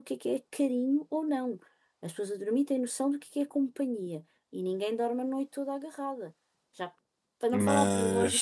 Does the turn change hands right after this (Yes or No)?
No